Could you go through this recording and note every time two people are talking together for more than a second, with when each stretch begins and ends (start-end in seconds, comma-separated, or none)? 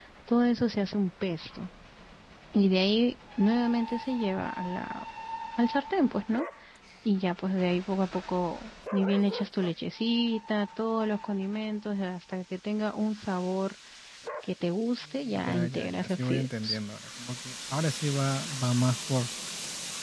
15.3-16.8